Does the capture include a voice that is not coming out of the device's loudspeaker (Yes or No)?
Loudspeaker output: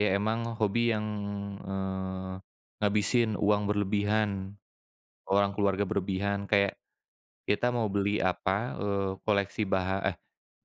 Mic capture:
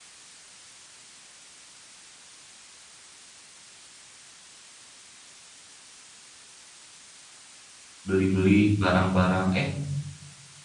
Yes